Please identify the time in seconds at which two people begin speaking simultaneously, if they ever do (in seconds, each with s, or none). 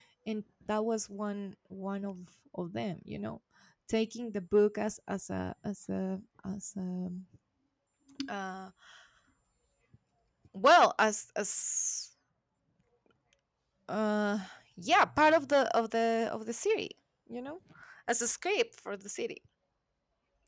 none